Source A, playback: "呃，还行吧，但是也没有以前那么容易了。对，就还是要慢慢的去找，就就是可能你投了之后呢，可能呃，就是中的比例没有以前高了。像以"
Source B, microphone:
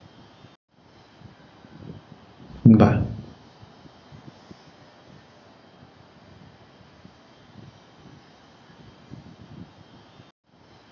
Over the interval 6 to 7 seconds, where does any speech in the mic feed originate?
neither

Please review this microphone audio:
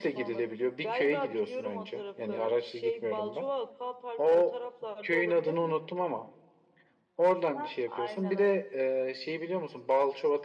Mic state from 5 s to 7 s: echo only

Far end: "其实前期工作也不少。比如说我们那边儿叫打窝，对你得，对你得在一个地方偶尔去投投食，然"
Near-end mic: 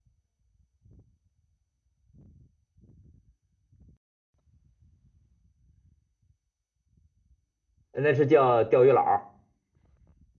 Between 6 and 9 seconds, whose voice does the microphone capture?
user only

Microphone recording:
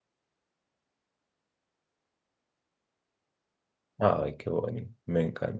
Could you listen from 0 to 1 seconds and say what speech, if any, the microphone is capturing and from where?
neither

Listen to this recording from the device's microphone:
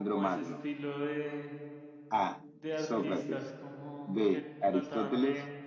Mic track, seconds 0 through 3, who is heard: both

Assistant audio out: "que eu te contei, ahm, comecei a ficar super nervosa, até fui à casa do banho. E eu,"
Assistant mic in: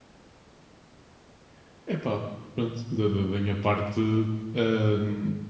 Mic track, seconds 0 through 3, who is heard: user only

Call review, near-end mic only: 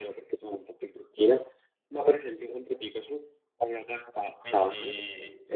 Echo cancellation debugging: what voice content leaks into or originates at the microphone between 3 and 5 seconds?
both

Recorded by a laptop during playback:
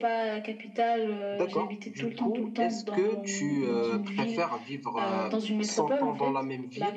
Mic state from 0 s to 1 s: echo only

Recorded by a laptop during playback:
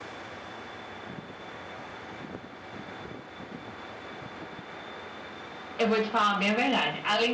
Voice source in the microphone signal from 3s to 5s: neither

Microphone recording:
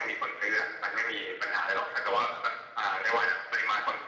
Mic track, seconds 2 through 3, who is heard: echo only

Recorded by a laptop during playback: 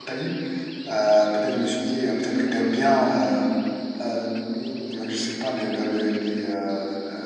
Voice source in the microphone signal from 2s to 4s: user only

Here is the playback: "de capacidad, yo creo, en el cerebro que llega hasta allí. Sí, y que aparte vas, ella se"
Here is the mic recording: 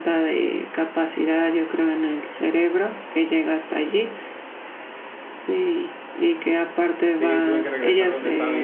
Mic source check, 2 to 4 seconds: echo only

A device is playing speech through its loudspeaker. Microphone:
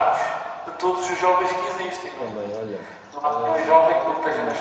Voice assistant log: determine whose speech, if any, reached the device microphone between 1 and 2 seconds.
echo only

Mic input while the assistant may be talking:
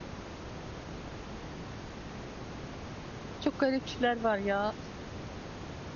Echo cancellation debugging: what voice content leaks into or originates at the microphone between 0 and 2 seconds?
neither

